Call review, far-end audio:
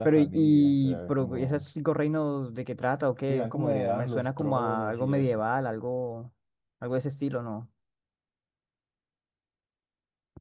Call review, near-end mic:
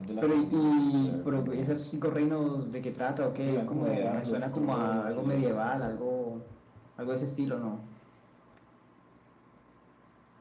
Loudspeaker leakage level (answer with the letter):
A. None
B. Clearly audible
B